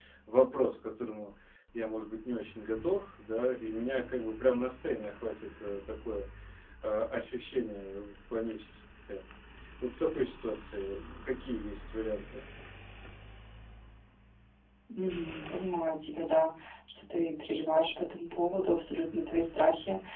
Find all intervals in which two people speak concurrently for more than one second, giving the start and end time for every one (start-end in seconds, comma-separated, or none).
none